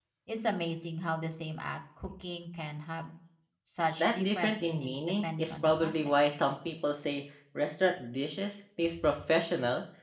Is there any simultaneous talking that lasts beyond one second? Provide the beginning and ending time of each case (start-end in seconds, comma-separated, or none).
4.0-6.5